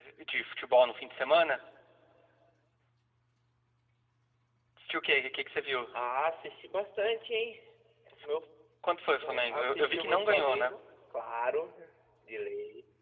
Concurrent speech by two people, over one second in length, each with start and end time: 9.2-10.7

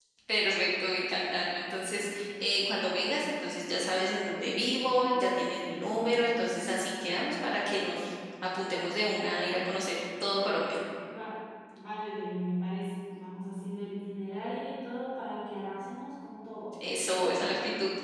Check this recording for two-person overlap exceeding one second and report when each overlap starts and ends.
none

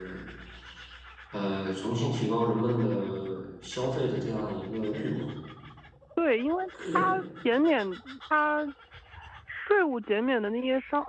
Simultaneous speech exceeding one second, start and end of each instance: none

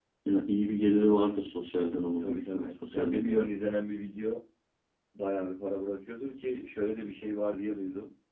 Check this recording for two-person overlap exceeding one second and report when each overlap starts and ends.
2.2-3.5

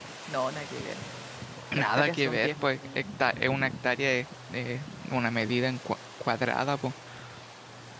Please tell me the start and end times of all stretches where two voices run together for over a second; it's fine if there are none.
1.7-3.0

